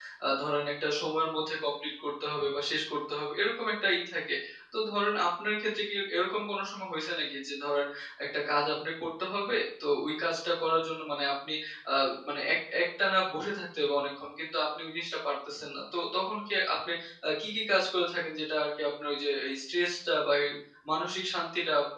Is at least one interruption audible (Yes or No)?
No